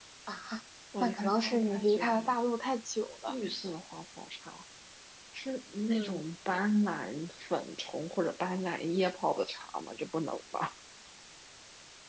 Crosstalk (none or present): present